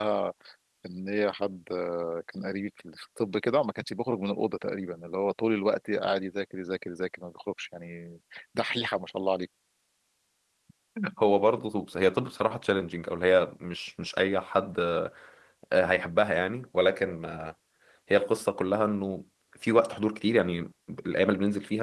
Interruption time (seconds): none

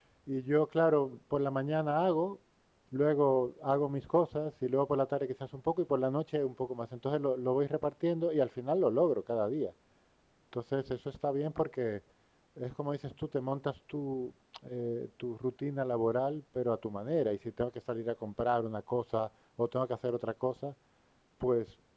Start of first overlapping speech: none

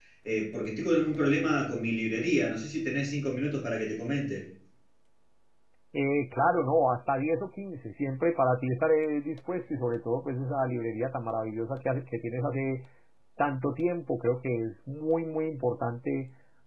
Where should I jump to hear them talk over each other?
none

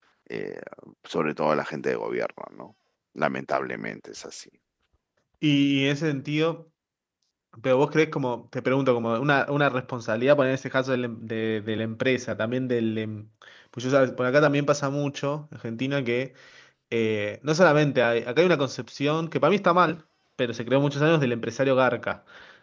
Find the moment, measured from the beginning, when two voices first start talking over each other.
none

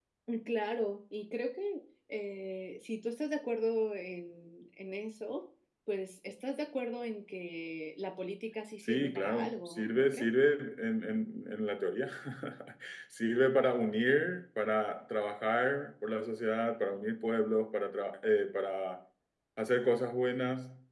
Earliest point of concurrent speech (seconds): 8.8 s

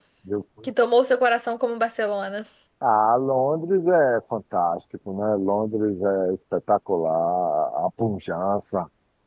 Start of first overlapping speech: none

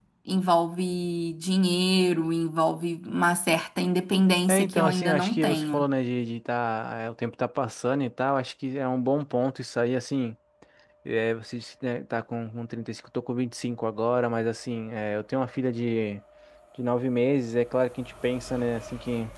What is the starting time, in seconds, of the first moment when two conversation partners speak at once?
4.5 s

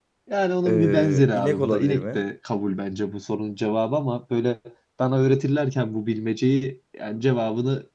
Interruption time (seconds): 0.7 s

